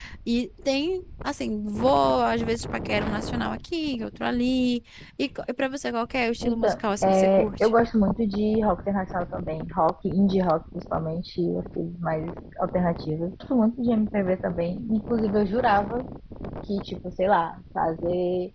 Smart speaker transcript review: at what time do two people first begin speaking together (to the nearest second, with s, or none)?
6 s